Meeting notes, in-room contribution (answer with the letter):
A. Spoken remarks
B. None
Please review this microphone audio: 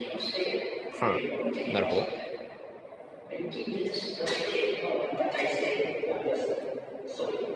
A